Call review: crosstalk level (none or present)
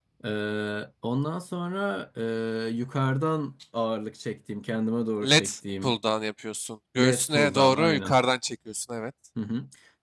present